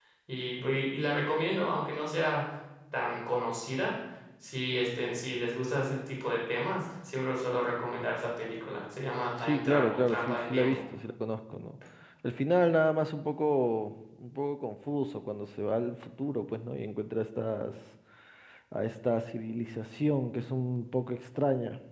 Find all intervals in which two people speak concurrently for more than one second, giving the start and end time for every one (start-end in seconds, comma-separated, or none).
9.4-10.8